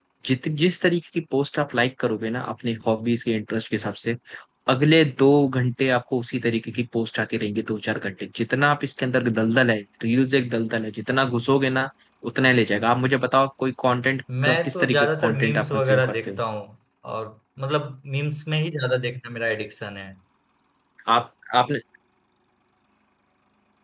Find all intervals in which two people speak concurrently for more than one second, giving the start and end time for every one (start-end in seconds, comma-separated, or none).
14.4-16.3